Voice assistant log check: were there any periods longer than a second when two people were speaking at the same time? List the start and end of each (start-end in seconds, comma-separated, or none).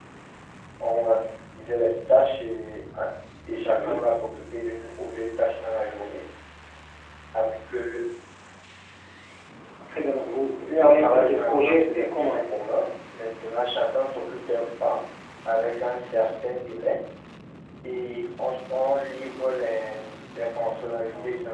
10.8-12.4